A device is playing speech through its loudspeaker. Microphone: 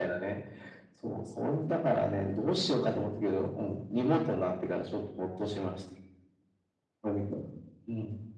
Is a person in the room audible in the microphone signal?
No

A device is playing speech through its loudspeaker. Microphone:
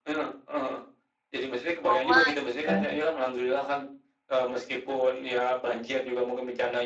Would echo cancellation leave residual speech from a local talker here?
Yes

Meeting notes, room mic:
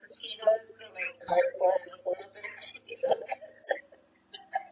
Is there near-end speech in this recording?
No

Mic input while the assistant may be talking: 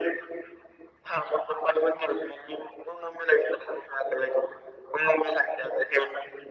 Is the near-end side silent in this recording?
Yes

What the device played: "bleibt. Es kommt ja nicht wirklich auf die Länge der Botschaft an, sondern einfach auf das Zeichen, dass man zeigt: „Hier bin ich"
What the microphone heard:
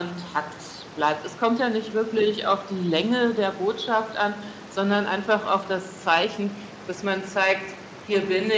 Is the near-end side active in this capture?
No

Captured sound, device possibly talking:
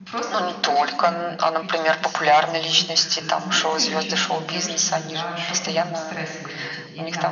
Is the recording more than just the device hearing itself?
Yes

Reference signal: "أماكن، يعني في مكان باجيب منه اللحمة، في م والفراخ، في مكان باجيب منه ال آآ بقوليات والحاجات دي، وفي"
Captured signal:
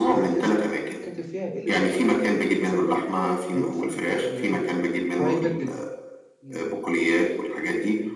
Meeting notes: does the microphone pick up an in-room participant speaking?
Yes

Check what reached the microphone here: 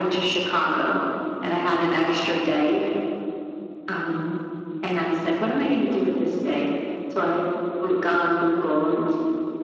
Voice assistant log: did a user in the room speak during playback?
No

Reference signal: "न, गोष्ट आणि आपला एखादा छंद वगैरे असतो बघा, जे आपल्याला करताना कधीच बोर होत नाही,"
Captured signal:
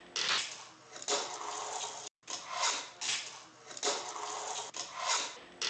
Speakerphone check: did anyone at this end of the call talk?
No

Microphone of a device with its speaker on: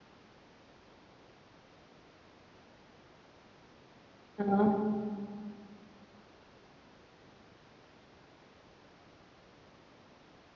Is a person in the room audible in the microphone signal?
Yes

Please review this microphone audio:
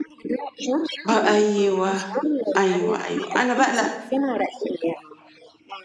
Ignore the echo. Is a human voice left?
Yes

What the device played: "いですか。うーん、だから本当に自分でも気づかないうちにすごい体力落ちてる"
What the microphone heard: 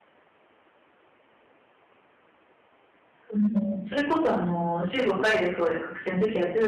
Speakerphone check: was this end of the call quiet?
No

